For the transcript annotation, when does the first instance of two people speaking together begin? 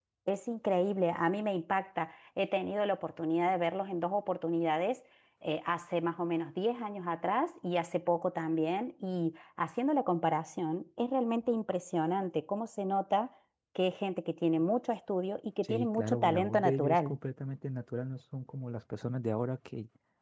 15.6 s

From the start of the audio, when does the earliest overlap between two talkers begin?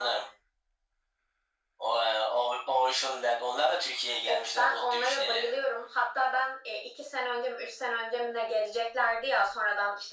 4.3 s

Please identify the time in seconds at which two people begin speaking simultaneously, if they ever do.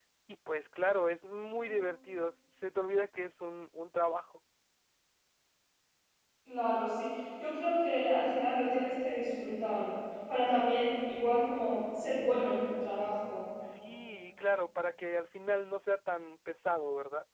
none

